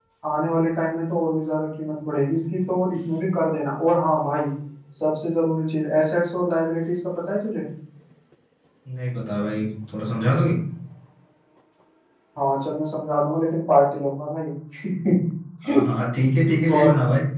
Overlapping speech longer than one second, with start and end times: none

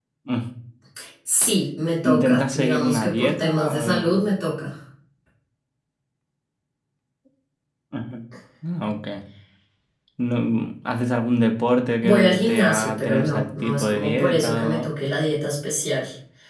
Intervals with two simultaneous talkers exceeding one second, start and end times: 2.0-4.1, 12.0-14.9

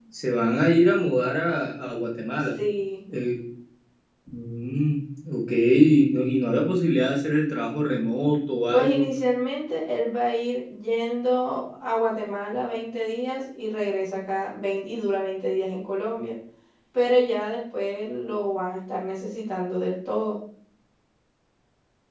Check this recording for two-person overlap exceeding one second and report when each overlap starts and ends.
none

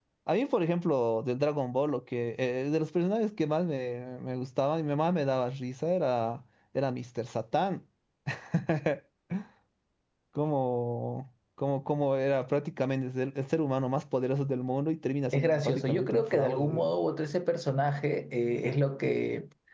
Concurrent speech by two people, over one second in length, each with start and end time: 15.3-16.9

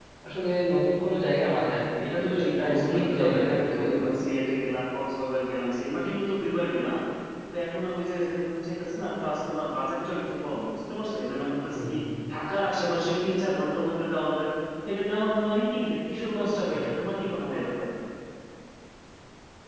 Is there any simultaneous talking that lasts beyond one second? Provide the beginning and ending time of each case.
2.0-4.1

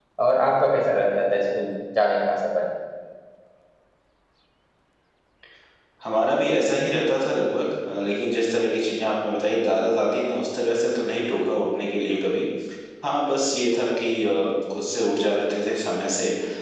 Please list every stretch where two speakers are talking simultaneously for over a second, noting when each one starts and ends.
none

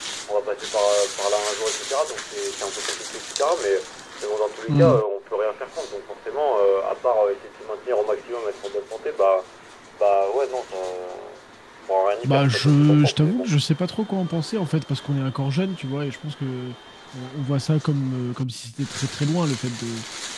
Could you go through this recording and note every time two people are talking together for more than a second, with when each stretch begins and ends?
12.2-13.5

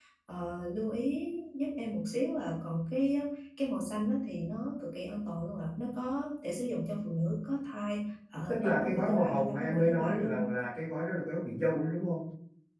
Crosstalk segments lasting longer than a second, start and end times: 8.5-10.4

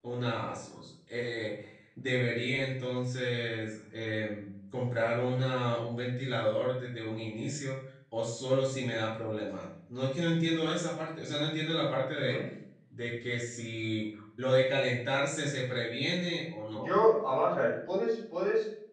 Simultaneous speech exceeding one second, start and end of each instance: none

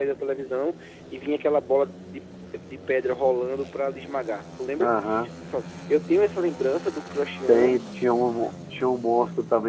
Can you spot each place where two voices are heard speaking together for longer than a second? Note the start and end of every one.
none

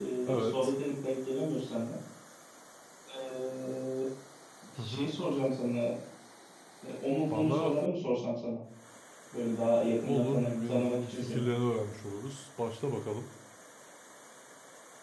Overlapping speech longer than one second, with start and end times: 10.1-11.5

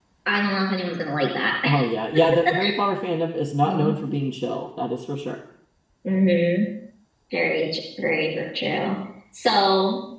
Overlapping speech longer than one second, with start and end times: none

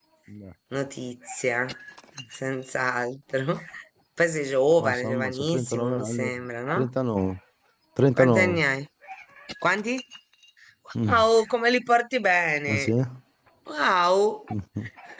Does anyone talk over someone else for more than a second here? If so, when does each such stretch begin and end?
4.8-6.3

